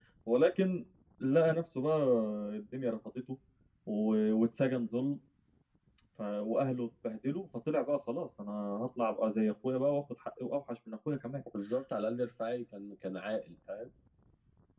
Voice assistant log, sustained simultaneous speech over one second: none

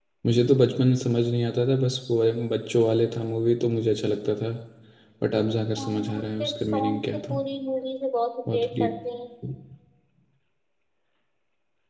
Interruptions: present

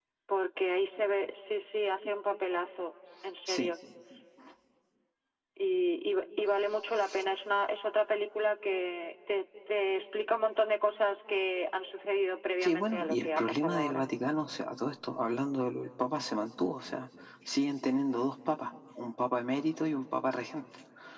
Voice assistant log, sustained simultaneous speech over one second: present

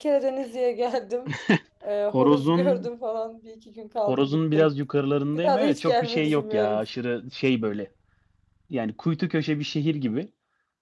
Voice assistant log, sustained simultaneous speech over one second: present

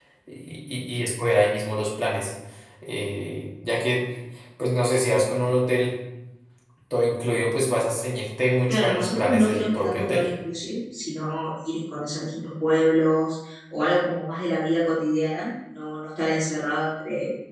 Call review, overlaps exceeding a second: present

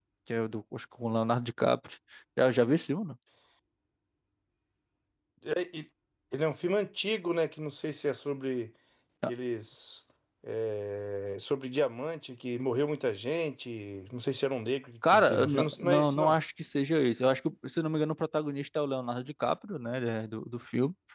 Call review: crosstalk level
present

